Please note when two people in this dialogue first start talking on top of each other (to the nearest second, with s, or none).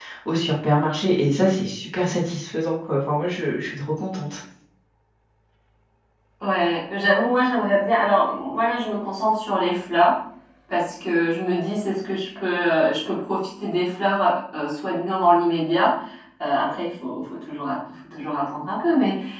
none